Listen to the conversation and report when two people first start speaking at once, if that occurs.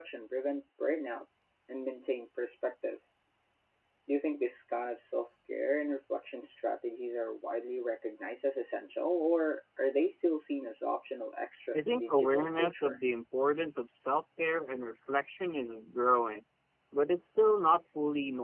11.7 s

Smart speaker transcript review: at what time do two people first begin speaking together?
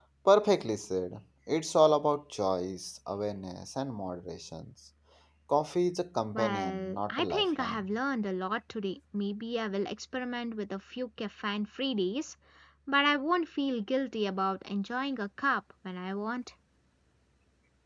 6.3 s

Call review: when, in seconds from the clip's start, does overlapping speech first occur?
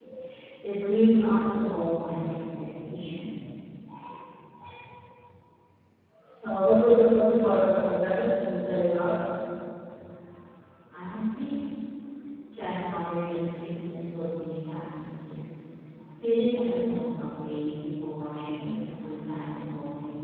none

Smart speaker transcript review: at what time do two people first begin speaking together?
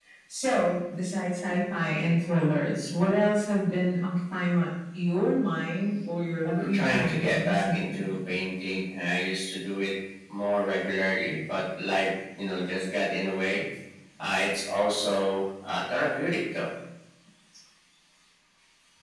6.4 s

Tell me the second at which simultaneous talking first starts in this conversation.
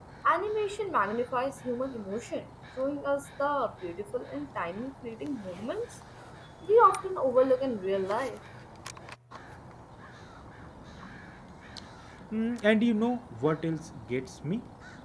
none

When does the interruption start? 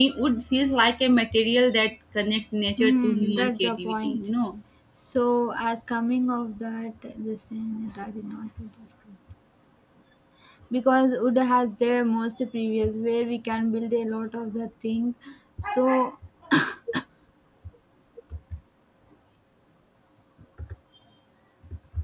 2.7 s

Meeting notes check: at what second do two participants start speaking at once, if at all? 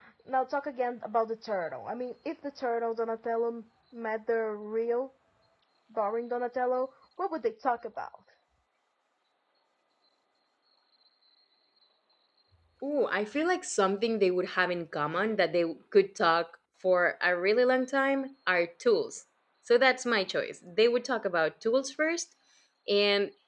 none

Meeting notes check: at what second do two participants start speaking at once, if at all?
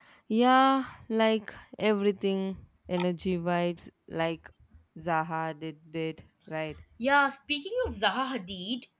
none

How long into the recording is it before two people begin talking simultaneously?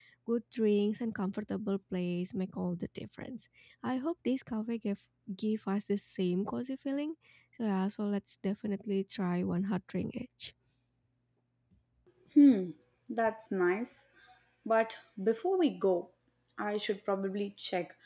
none

